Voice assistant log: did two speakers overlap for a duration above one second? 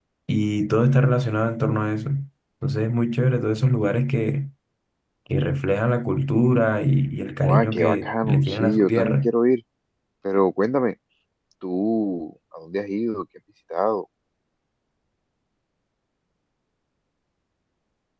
Yes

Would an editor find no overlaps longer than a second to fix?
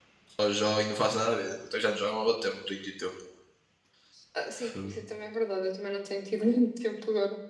Yes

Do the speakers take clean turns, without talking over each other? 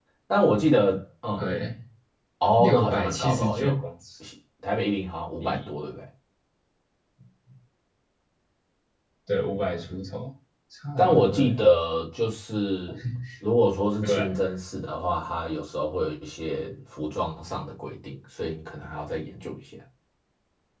No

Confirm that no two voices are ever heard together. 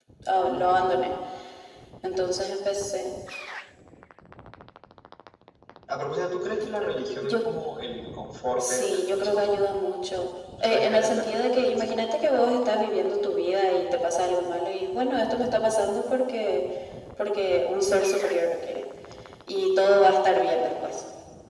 No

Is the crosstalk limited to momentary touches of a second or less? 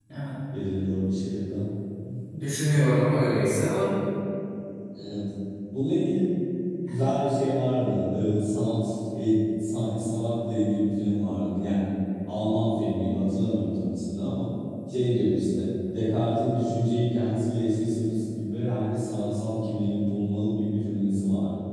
Yes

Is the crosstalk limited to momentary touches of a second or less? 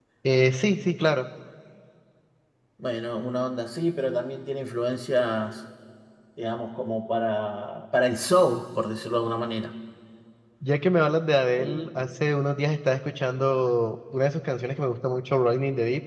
Yes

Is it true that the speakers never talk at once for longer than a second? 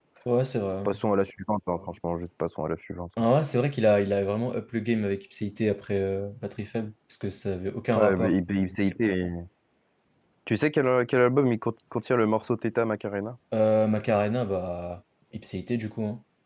Yes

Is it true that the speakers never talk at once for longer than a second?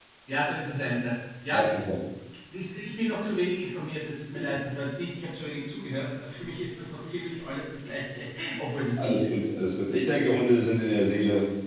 Yes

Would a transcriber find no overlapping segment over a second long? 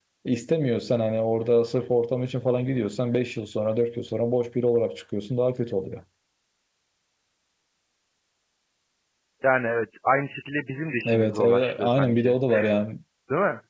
No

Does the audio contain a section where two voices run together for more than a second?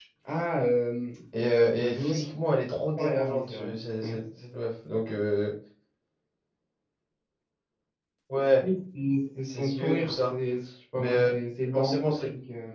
Yes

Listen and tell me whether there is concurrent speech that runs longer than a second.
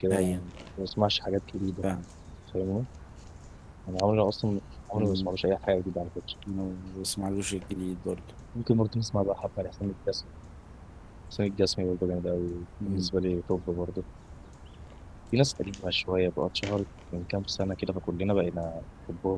No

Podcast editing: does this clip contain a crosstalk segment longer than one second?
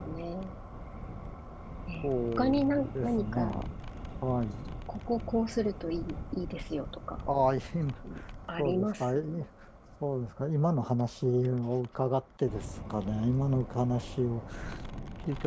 Yes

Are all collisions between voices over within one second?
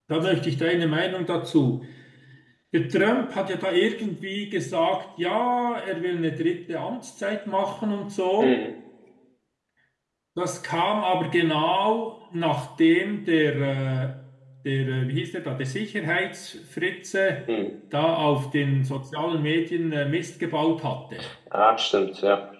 Yes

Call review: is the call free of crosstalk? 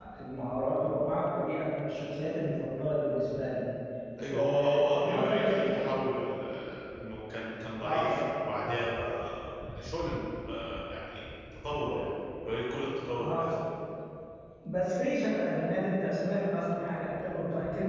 No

